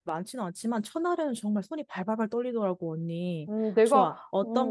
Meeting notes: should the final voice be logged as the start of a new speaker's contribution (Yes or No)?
Yes